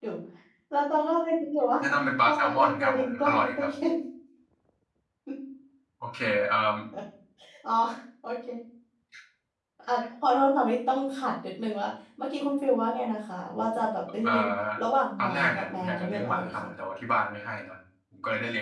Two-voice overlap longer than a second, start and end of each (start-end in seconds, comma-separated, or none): 2.2-3.7, 15.2-16.7